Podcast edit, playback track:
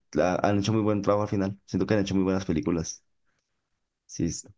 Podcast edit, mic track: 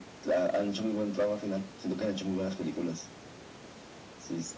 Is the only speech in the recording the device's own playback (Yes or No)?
Yes